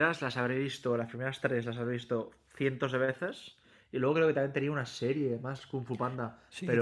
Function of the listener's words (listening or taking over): taking over